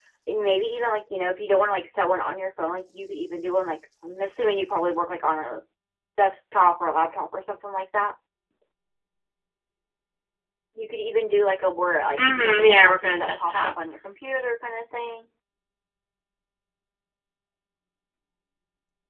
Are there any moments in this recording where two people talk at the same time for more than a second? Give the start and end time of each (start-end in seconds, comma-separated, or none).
12.2-13.7